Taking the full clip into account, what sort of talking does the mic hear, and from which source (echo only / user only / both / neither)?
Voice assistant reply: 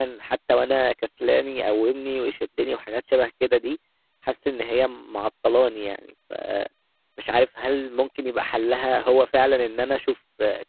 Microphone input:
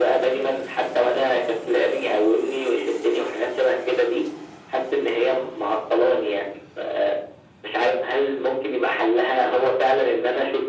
echo only